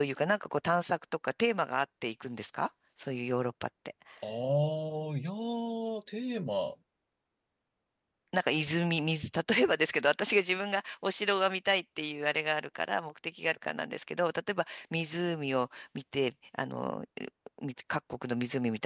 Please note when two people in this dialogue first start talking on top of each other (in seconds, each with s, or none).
none